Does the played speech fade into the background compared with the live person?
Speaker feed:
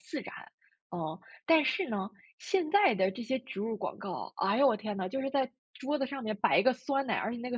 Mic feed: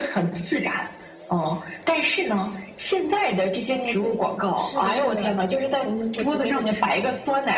No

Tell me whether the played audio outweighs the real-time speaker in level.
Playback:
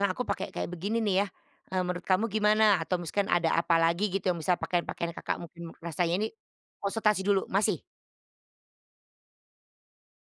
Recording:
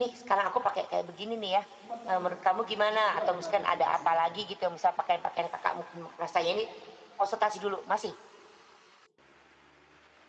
Yes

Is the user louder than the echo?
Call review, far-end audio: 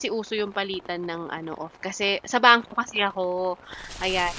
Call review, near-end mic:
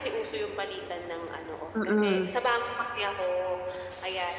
Yes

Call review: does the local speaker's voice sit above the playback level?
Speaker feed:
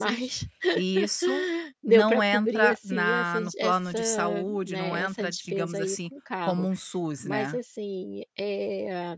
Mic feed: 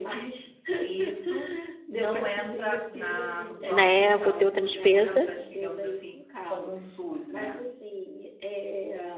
Yes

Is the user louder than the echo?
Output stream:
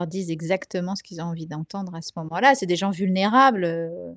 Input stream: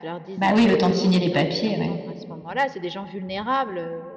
Yes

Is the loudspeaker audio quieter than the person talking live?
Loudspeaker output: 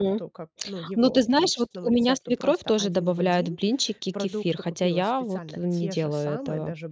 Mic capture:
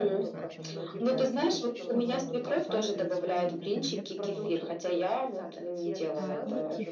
No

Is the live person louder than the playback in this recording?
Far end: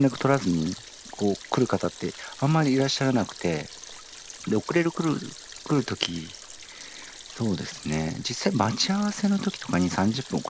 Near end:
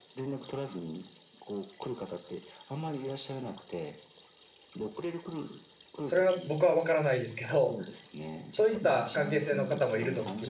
Yes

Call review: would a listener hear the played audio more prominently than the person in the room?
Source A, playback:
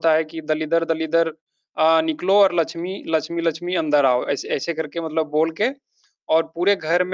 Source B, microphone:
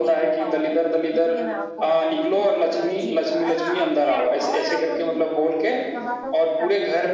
Yes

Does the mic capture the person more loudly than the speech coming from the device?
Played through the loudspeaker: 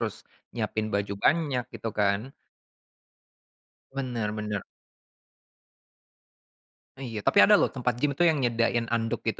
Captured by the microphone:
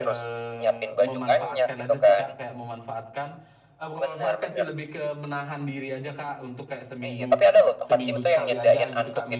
No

